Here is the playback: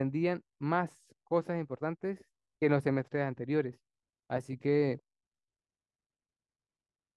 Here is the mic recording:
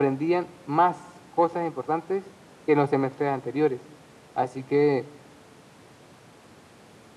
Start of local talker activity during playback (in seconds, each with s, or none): none